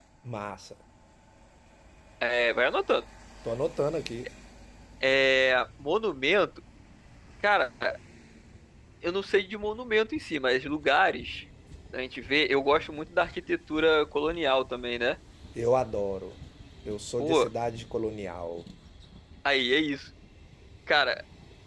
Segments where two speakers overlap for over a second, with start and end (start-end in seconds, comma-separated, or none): none